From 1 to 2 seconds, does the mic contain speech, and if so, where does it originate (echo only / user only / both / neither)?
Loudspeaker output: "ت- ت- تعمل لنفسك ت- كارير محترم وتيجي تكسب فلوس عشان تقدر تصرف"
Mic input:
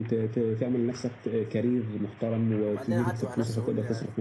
echo only